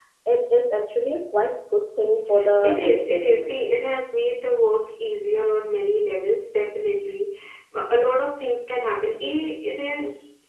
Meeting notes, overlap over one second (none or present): present